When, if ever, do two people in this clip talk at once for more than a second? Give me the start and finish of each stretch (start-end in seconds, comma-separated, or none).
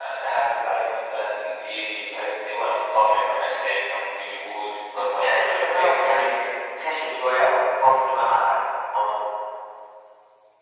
4.9-6.3